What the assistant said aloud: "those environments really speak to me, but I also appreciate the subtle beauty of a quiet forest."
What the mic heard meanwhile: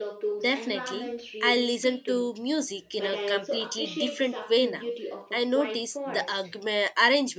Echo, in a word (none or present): present